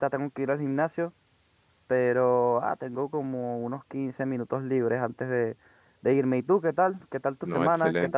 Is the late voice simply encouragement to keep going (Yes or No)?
No